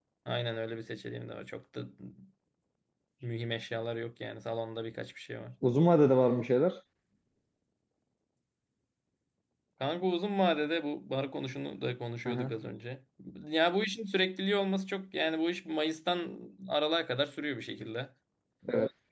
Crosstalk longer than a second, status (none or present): none